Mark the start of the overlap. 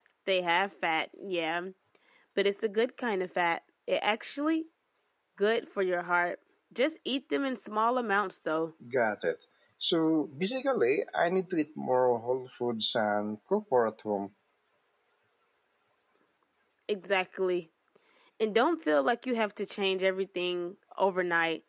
none

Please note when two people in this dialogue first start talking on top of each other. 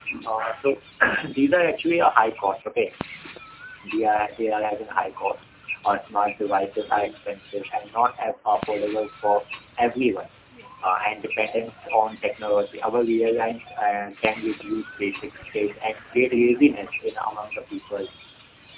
none

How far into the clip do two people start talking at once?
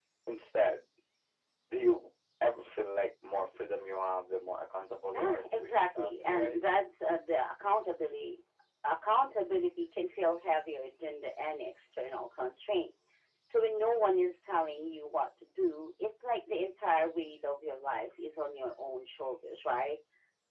5.1 s

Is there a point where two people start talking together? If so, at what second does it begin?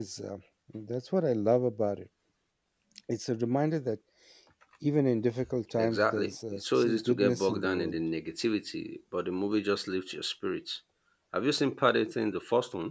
5.8 s

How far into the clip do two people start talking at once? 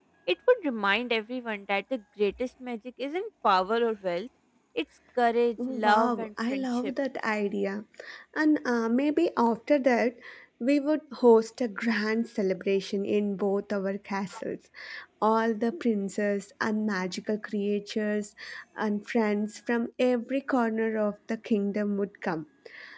5.6 s

